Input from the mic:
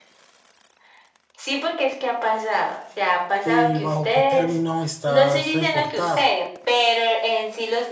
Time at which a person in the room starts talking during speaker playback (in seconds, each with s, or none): 3.4 s